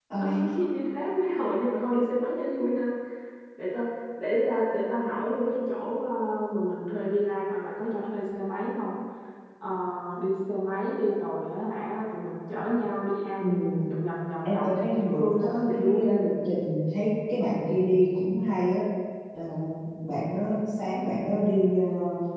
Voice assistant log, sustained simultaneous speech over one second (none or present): present